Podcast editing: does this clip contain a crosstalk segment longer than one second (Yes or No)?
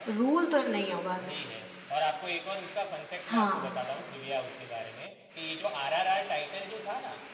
No